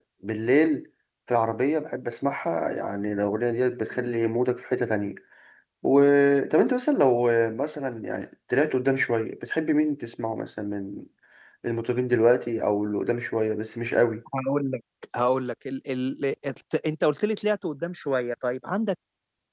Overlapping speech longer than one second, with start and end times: none

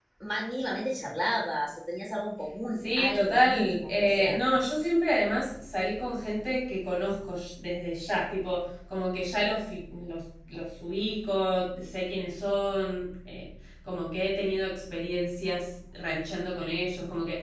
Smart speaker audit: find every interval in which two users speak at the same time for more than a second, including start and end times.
3.1-4.3

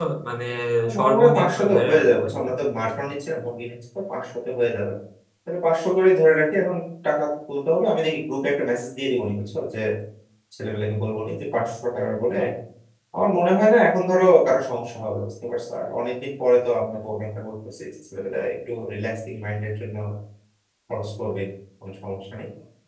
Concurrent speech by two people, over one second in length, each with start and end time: 1.0-2.5

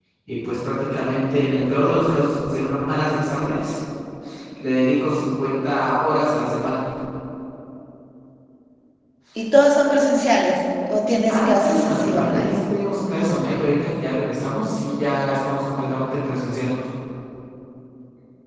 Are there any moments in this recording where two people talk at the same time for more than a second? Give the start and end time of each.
11.3-12.5

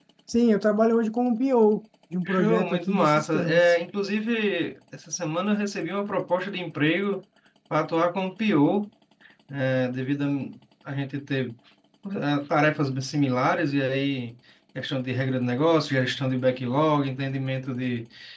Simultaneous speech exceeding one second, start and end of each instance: 2.2-3.7

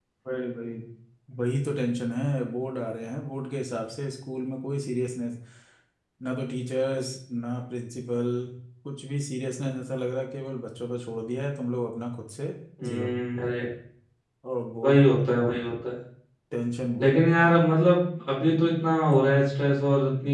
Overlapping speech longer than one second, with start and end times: none

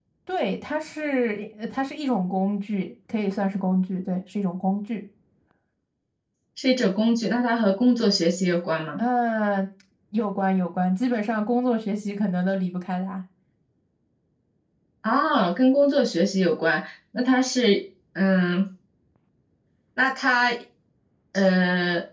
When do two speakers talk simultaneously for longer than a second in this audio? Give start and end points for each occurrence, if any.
none

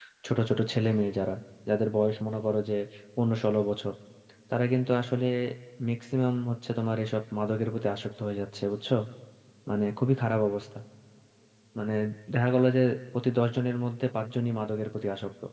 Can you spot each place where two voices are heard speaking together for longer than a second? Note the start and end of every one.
none

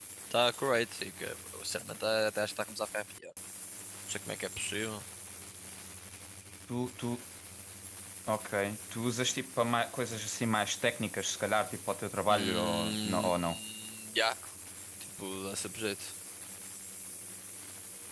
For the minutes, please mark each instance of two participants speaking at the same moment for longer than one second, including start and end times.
12.3-13.6

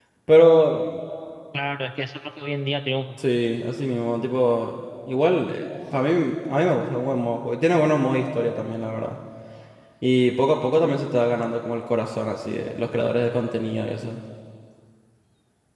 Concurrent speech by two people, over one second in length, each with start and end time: none

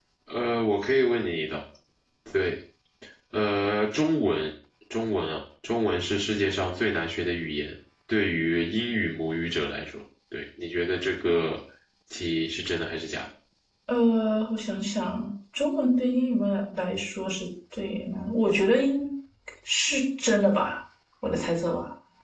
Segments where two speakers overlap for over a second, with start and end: none

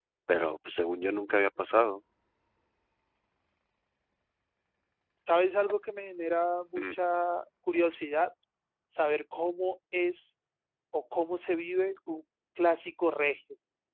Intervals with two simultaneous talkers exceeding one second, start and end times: none

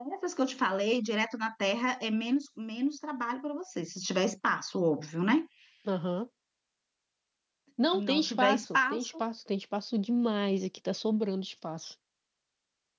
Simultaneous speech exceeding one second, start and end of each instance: 7.9-9.2

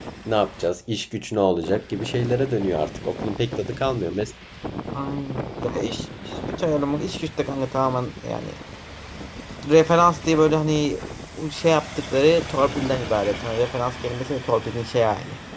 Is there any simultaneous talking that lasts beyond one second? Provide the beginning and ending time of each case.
none

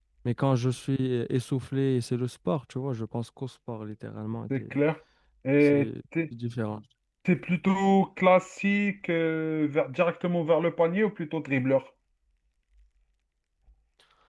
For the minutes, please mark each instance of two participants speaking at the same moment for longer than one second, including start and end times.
none

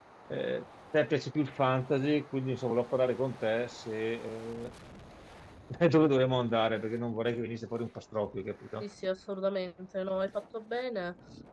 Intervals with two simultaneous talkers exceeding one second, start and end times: none

